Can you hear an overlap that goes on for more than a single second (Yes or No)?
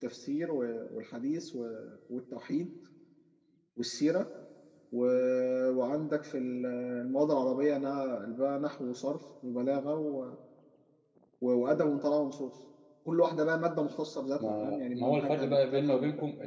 Yes